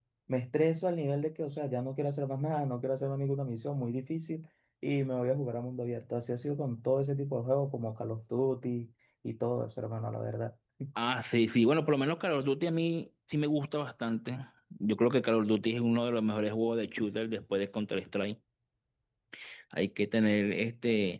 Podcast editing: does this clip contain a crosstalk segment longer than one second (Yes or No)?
No